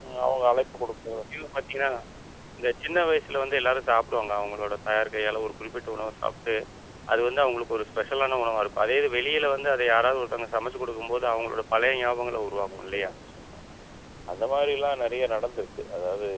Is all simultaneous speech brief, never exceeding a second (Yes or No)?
Yes